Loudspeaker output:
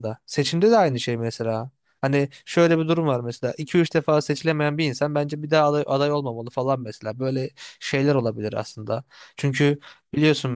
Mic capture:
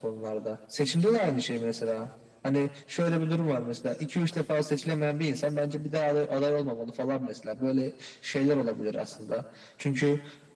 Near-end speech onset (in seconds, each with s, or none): none